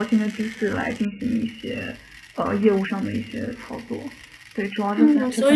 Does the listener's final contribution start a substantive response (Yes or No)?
Yes